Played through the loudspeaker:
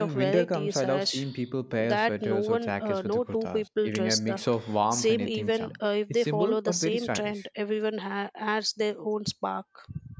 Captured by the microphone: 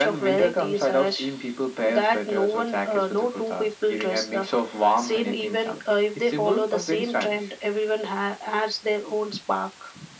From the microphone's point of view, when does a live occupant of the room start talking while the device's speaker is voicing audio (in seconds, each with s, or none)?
none